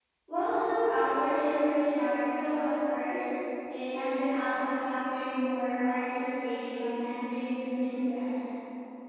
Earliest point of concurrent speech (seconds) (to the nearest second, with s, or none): none